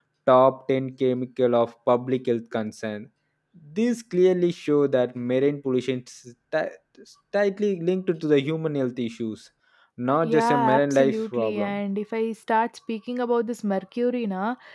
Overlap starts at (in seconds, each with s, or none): 10.2 s